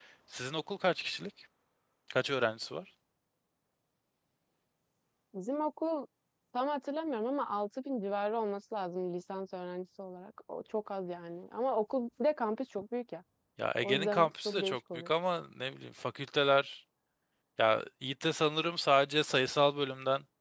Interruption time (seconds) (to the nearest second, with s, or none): 14 s